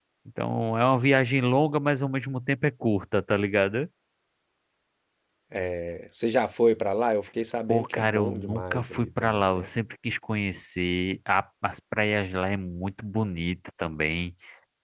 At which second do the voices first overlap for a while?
7.7 s

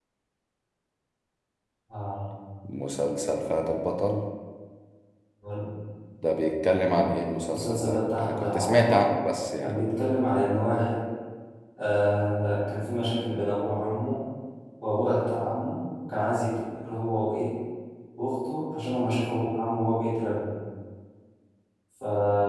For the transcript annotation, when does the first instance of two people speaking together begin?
7.5 s

